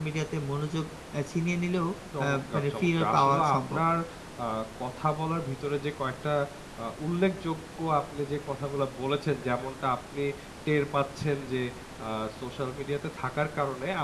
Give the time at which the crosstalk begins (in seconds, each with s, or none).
2.1 s